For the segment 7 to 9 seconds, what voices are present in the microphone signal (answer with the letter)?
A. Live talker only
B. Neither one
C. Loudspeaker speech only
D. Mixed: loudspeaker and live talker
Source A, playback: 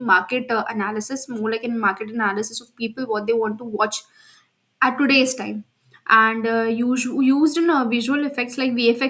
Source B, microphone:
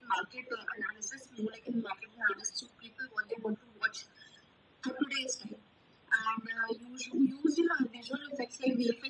C